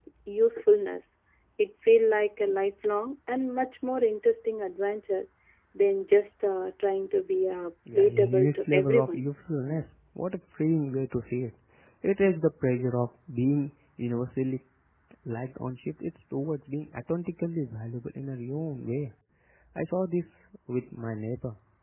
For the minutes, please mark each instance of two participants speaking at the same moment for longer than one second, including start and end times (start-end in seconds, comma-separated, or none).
8.0-9.2